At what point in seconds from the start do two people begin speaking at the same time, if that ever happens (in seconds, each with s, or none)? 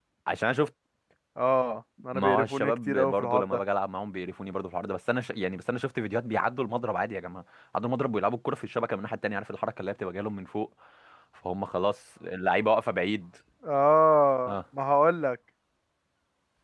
2.1 s